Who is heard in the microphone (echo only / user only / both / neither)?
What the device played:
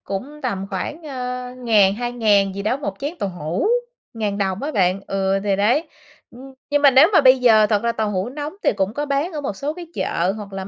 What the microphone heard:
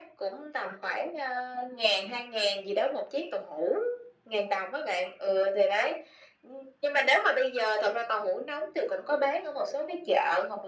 echo only